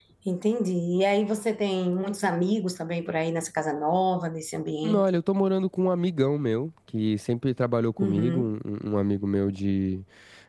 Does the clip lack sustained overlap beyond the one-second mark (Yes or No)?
Yes